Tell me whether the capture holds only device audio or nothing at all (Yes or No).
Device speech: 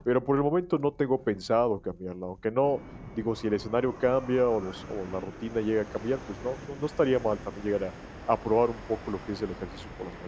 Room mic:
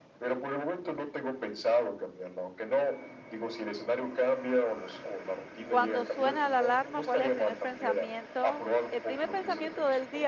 No